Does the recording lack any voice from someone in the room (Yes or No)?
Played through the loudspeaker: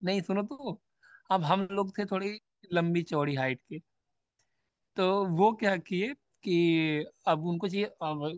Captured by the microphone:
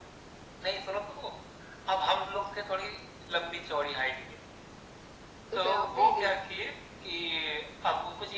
No